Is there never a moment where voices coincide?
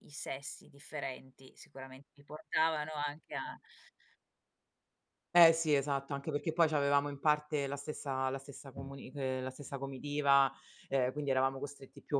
Yes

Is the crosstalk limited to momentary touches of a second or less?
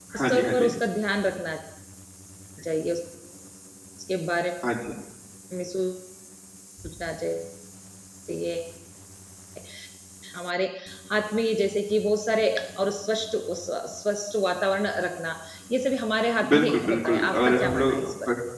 No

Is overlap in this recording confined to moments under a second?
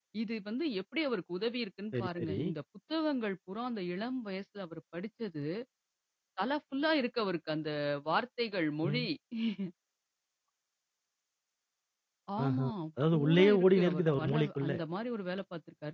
No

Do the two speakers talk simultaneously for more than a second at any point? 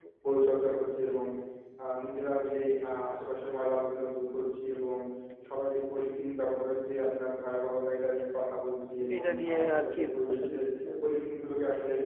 Yes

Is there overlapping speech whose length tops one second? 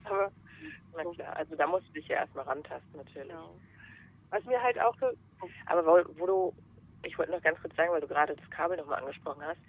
No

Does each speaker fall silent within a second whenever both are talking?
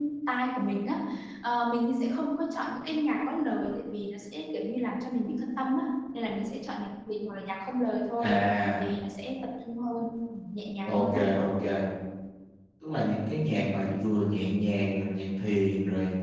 Yes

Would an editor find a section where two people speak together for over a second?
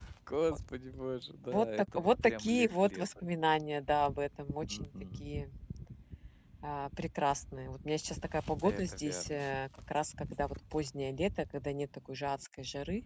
Yes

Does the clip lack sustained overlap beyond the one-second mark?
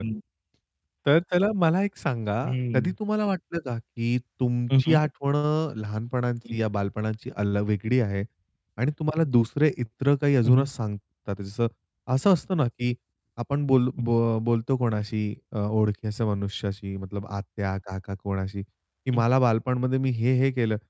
Yes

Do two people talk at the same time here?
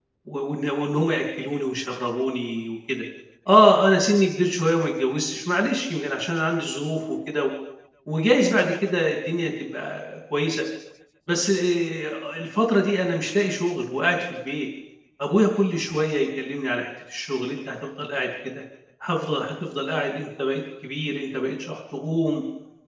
No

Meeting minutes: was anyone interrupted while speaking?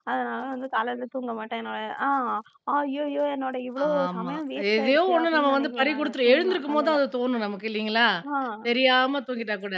Yes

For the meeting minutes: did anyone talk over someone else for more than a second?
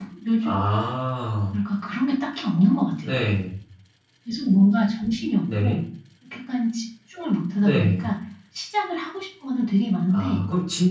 No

